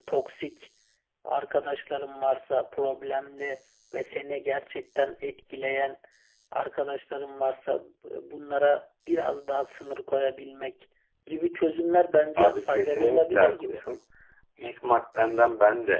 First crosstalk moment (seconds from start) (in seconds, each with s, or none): 12.4 s